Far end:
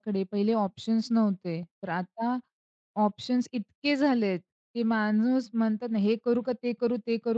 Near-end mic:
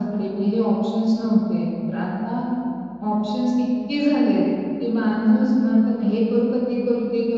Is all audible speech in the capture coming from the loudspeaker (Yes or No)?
Yes